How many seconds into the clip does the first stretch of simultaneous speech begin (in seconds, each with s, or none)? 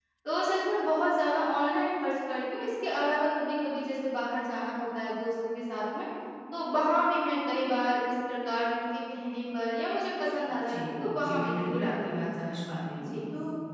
10.7 s